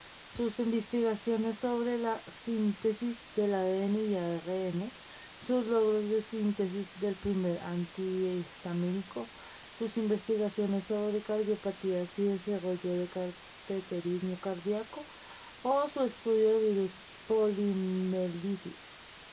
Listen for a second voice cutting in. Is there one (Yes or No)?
No